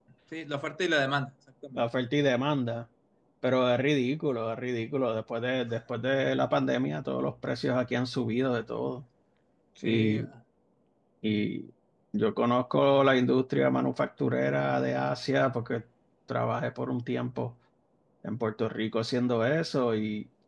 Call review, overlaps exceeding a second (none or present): none